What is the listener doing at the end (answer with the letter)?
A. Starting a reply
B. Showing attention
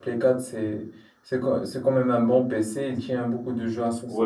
A